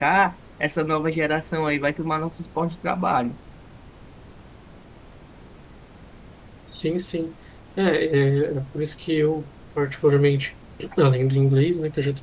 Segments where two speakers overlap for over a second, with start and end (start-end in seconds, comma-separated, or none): none